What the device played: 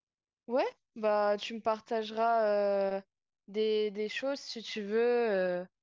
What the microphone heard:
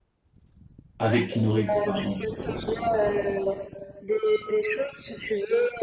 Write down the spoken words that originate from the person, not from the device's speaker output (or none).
Avec Keanu Reeves, pardon.